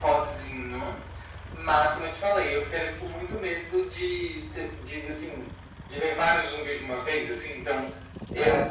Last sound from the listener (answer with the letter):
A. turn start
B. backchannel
B